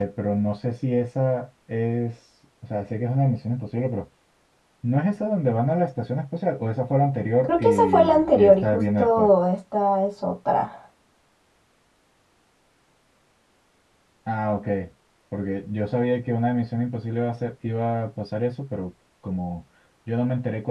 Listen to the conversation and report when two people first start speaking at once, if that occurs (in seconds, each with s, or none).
7.4 s